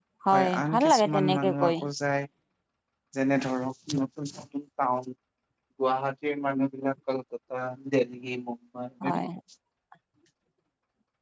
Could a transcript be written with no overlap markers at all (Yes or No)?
No